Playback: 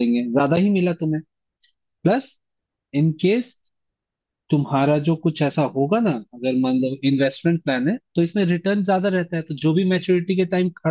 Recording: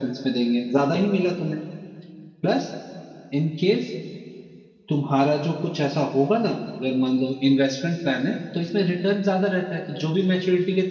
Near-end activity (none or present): none